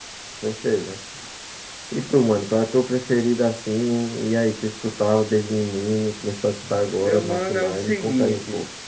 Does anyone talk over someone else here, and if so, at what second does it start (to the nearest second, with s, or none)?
7 s